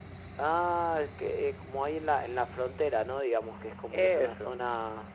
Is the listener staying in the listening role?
Yes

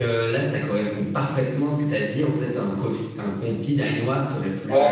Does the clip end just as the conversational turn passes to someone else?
Yes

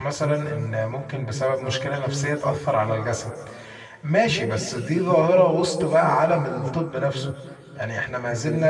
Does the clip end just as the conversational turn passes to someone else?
No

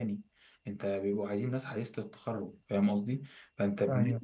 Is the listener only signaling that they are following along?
Yes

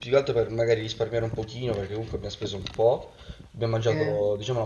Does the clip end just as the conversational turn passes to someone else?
No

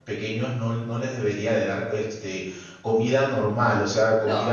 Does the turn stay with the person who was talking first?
Yes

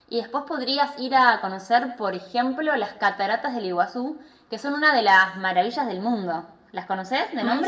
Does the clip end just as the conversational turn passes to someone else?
Yes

